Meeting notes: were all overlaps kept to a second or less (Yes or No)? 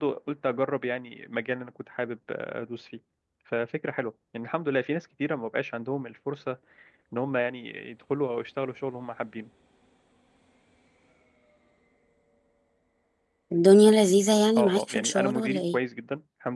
No